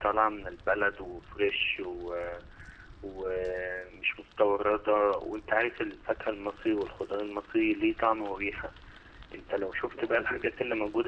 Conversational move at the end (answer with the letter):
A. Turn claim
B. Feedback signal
B